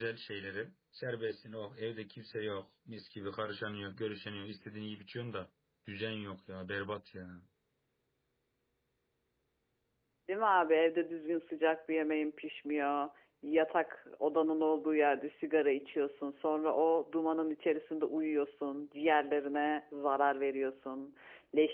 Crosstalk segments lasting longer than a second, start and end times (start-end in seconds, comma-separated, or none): none